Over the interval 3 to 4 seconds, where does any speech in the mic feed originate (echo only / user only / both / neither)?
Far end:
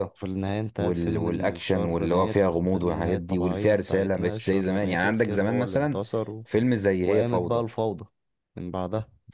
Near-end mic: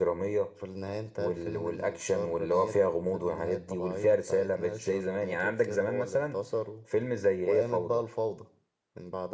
echo only